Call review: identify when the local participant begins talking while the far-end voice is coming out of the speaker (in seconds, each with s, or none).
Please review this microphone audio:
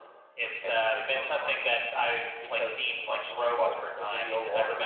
none